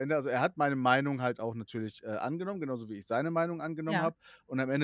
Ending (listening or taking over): listening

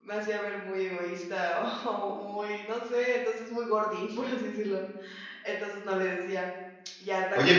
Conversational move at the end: taking over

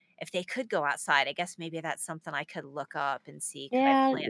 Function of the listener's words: taking over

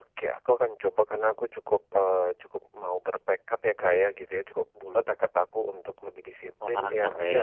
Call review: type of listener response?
listening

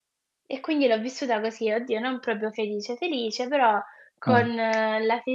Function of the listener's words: listening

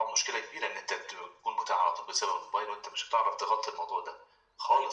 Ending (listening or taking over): taking over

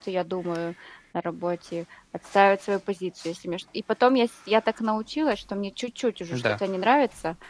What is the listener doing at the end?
listening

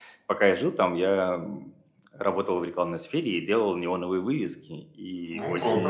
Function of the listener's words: listening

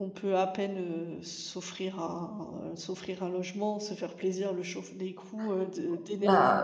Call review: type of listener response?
taking over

